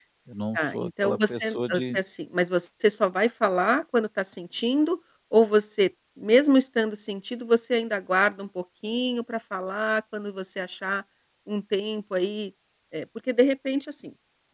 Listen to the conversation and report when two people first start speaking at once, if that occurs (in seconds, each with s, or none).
0.6 s